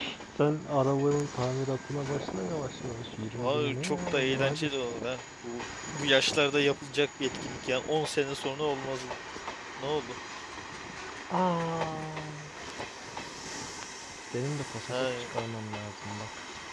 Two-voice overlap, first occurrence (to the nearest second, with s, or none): 3 s